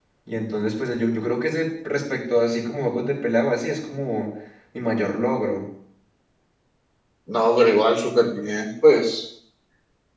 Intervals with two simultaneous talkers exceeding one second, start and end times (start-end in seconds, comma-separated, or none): none